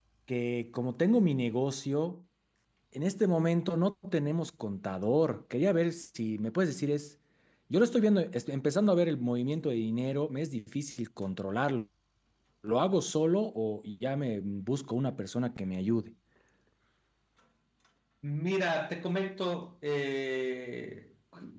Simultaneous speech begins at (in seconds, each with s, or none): none